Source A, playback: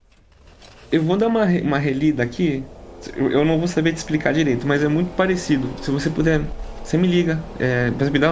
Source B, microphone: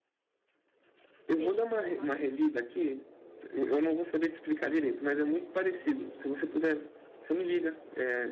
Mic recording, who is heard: both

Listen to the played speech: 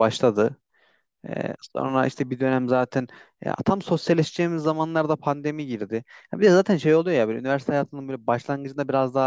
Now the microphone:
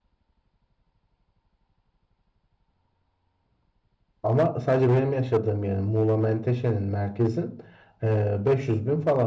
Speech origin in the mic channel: user only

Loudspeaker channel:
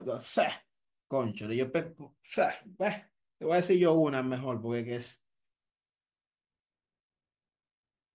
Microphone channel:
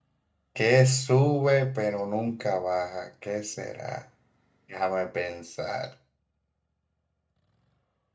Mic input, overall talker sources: user only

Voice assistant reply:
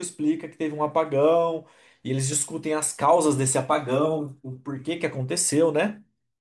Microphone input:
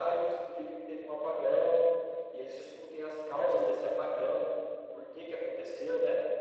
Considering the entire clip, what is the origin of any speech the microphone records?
echo only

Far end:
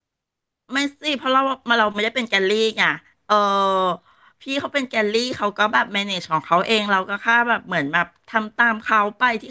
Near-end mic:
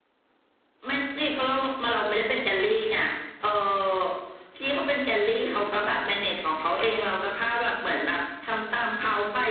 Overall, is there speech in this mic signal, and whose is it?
echo only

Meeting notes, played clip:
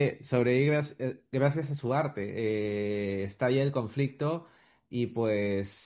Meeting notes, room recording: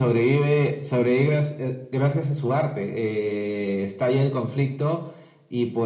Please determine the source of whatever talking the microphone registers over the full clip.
echo only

